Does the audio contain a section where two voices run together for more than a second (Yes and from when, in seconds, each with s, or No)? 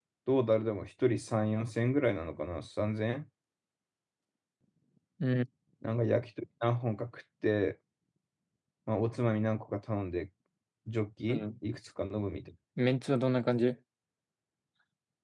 No